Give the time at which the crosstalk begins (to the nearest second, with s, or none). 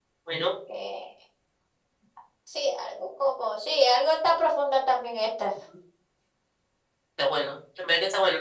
none